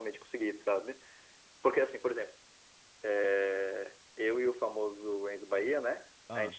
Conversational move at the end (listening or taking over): listening